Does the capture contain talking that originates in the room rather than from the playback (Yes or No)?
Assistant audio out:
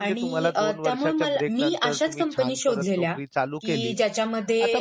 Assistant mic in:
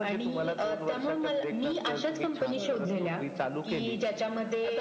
Yes